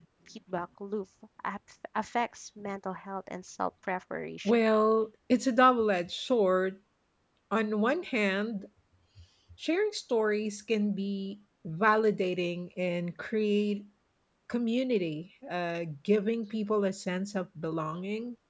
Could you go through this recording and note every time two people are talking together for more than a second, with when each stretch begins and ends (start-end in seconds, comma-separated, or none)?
none